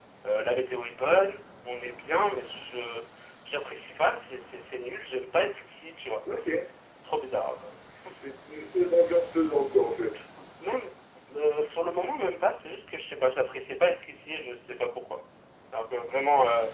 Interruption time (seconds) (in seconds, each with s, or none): none